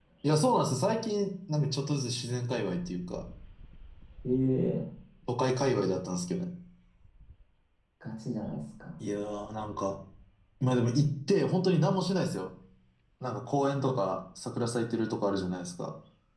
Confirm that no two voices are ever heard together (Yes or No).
Yes